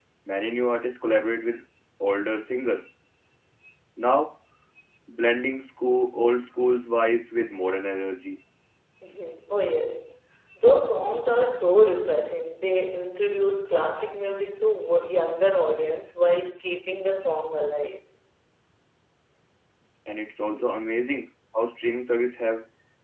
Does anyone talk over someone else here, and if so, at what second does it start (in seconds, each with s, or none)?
none